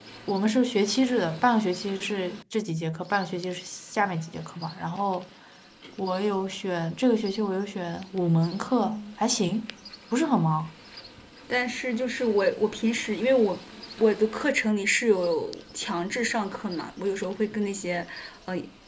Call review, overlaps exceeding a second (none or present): none